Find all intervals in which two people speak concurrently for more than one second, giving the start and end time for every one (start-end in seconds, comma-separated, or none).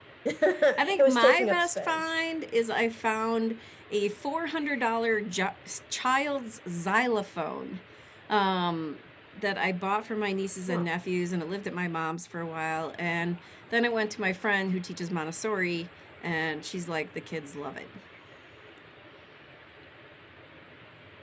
0.8-2.0